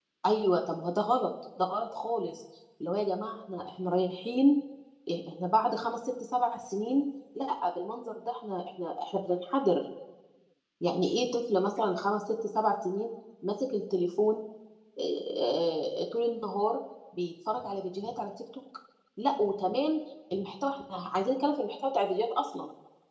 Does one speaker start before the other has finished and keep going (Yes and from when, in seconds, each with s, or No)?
No